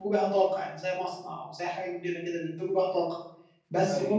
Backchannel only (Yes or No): Yes